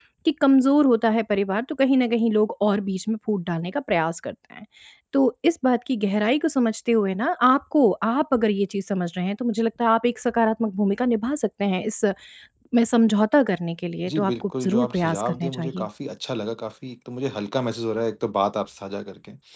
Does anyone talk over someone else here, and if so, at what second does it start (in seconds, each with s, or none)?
14.1 s